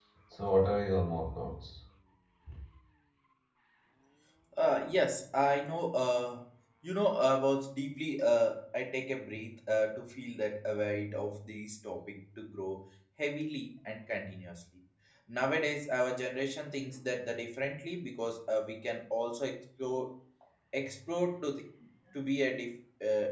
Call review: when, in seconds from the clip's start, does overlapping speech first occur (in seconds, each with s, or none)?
none